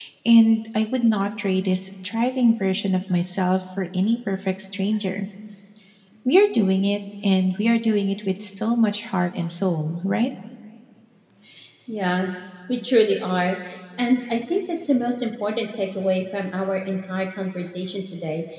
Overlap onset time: none

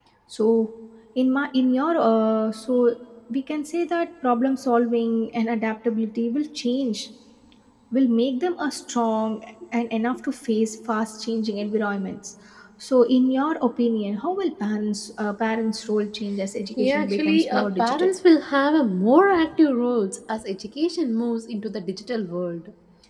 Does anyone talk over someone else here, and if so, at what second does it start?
16.7 s

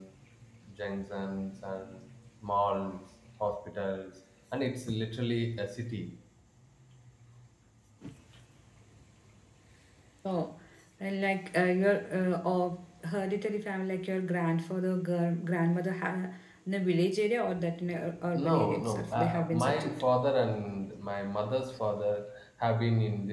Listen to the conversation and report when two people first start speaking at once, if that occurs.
18.4 s

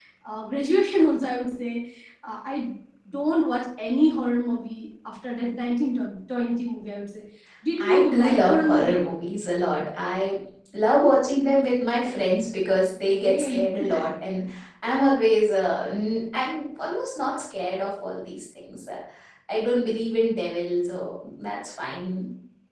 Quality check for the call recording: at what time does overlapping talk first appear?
7.8 s

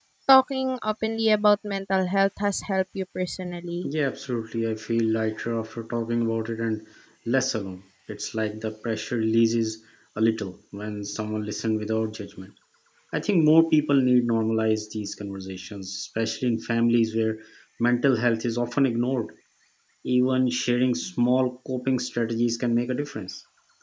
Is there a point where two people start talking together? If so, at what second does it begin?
none

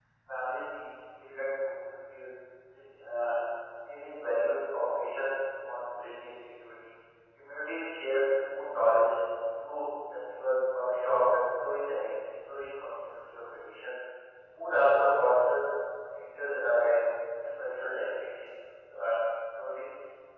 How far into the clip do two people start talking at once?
none

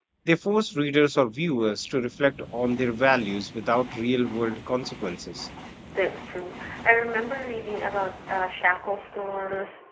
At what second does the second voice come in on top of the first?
none

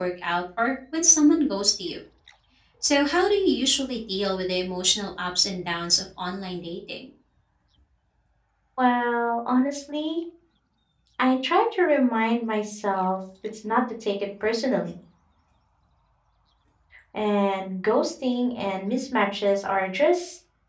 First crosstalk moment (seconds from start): none

